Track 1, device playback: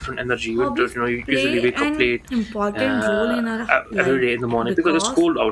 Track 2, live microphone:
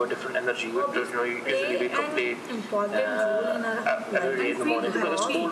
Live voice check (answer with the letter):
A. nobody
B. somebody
B